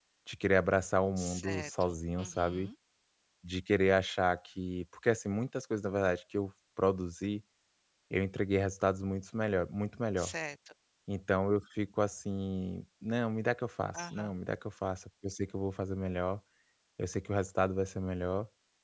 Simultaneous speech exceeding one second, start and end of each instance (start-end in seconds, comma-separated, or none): 1.2-2.7